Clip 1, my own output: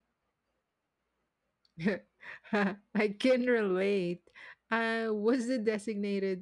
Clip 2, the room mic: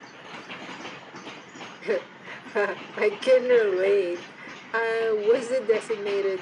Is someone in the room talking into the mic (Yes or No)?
No